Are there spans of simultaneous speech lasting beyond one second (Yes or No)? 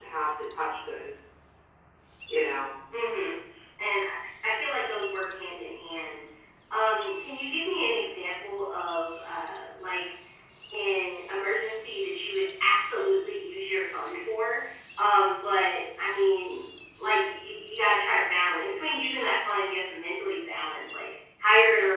No